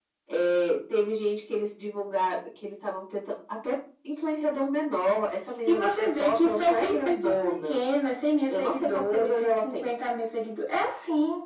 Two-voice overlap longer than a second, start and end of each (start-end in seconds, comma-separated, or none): 5.7-7.8, 8.5-9.8